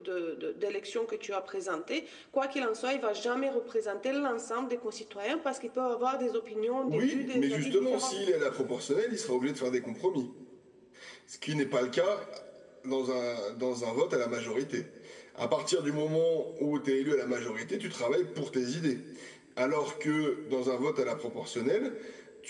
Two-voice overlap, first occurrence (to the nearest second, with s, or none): 7 s